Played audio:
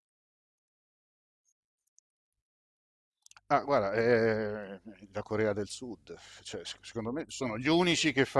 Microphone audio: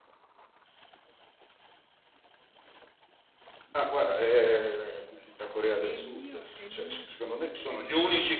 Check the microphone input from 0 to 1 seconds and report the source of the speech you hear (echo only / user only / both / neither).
neither